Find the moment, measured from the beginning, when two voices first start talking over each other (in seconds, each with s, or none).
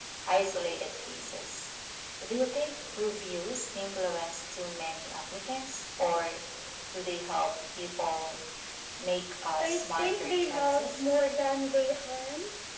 9.6 s